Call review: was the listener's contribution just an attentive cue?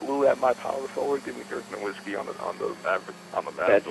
No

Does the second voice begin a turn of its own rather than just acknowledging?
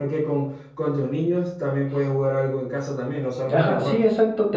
Yes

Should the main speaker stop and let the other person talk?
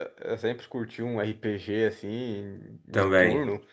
No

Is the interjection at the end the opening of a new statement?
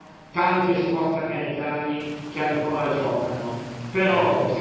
No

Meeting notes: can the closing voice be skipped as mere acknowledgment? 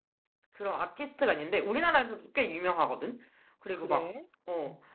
Yes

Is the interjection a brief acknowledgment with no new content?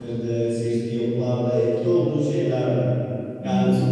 Yes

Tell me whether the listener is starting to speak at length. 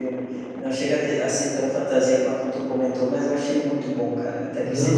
No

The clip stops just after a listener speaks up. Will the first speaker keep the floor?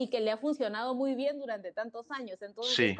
Yes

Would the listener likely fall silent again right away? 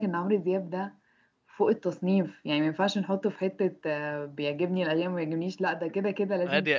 No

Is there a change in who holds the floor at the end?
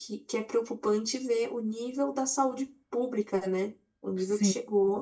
No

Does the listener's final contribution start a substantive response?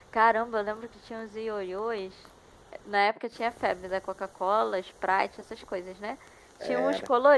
No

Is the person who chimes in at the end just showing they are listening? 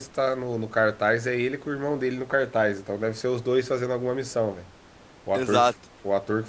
Yes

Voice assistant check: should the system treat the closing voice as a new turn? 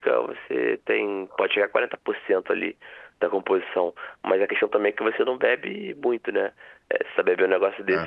No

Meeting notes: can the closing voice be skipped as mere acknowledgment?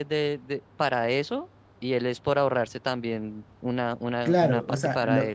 No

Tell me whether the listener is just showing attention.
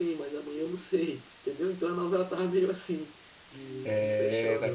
No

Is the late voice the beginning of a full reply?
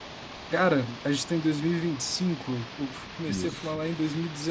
No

